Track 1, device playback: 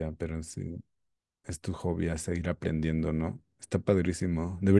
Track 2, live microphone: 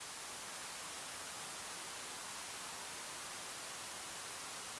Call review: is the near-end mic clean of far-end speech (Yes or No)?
Yes